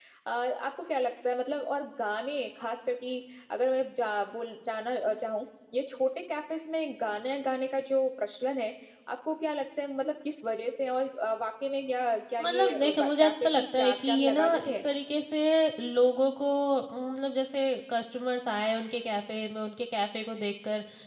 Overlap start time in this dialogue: 12.4 s

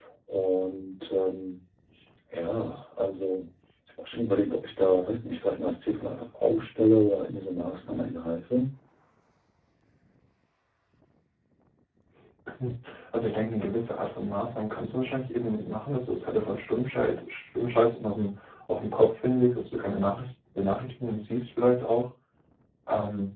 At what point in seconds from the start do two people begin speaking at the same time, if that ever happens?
none

